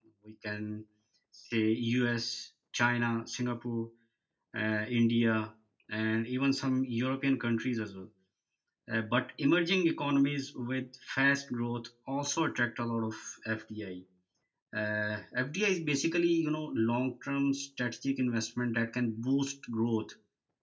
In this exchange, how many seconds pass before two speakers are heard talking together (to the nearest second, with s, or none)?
none